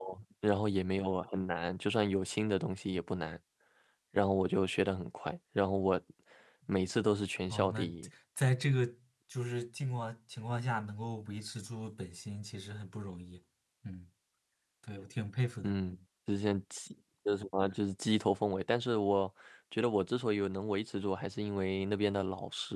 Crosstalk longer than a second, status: none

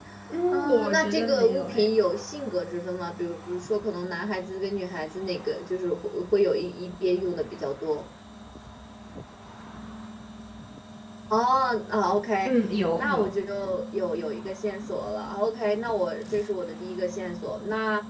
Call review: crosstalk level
present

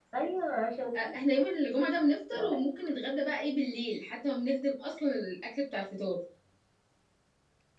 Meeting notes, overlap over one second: none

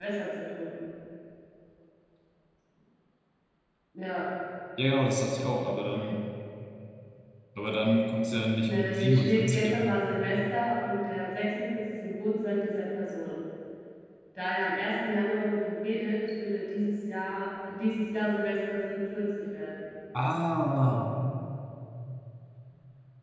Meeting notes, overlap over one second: present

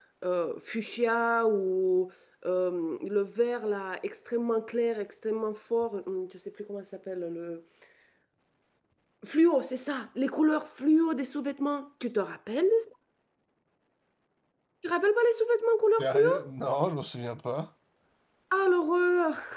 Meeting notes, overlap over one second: none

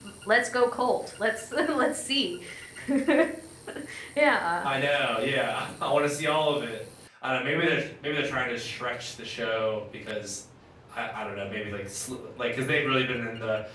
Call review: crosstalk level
none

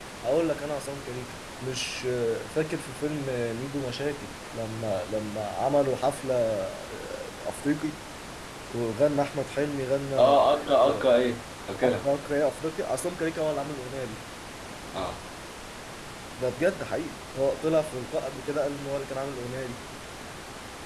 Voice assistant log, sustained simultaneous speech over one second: none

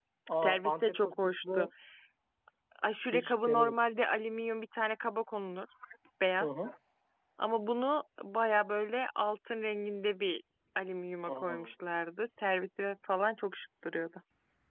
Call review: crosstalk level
present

